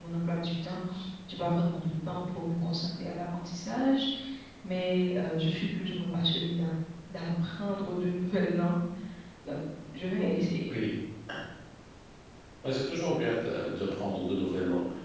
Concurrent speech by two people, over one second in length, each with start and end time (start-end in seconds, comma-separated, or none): none